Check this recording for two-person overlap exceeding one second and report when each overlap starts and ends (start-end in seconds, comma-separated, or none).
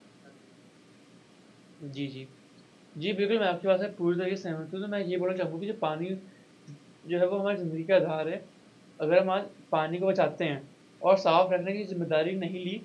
none